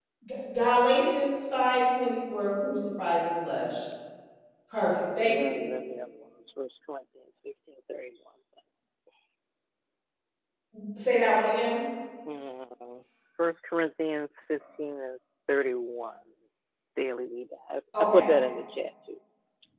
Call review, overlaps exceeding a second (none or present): none